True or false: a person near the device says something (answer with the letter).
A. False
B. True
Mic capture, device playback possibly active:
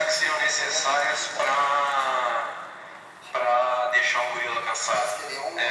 A